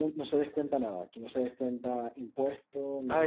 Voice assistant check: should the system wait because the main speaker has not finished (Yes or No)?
No